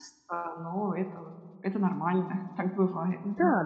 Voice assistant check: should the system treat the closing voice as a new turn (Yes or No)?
Yes